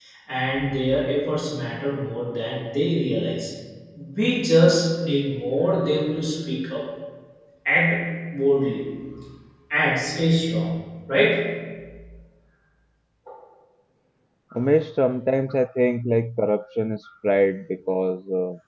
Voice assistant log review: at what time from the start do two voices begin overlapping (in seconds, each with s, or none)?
none